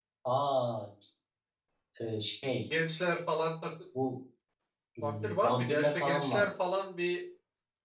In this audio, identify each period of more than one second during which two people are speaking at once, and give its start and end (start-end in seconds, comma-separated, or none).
5.0-6.5